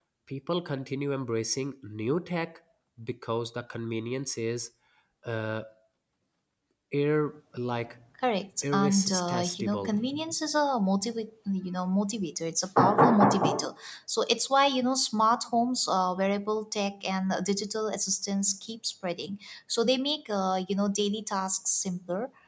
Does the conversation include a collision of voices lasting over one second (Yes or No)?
Yes